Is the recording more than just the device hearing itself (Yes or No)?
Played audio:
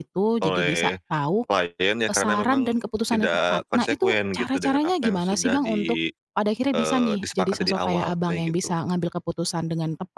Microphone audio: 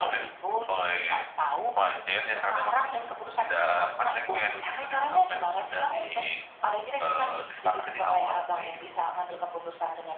No